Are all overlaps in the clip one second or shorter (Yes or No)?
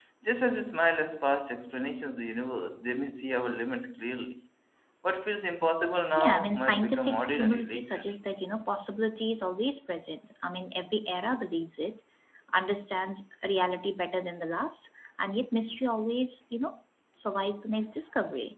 No